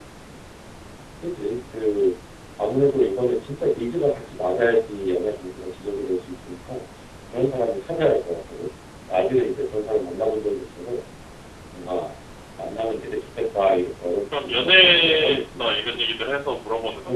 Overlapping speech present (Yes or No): Yes